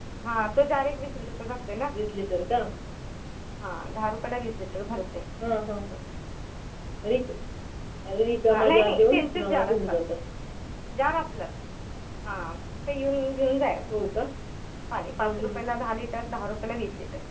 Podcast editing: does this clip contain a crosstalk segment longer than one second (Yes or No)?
Yes